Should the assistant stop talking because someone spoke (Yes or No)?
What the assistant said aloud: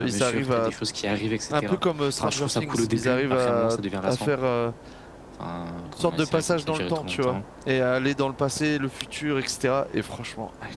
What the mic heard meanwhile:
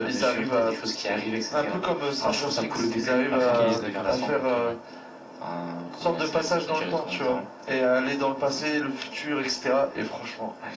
Yes